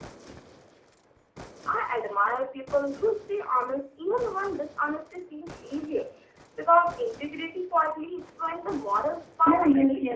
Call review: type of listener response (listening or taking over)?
taking over